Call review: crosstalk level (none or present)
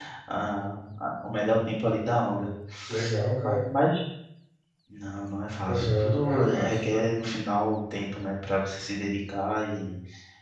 present